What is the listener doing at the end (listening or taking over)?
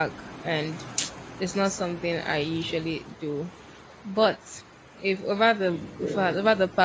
listening